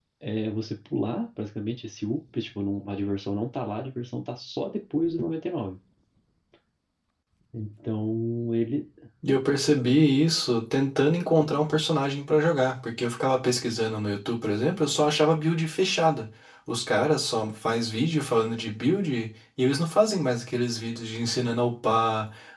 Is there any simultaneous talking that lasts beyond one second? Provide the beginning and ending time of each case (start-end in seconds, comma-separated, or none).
none